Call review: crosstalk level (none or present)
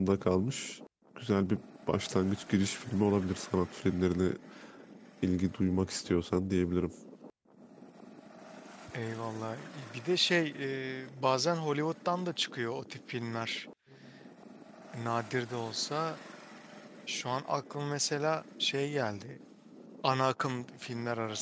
none